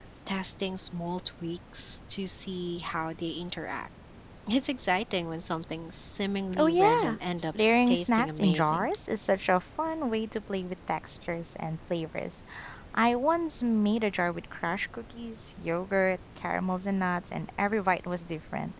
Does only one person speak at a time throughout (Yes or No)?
No